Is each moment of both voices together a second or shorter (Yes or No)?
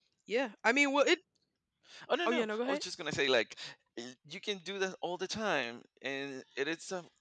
Yes